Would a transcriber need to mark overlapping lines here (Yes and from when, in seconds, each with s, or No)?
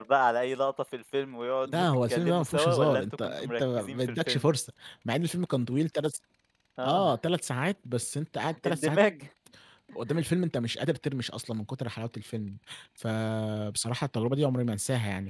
Yes, from 1.7 s